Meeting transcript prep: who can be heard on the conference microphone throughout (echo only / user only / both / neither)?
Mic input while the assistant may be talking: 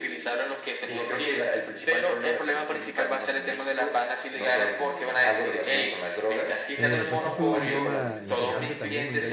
both